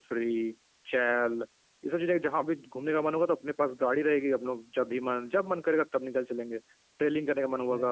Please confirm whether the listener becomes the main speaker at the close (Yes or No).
No